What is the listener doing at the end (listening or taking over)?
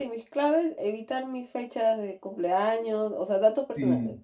taking over